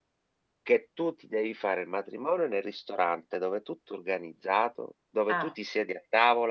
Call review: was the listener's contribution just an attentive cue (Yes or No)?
Yes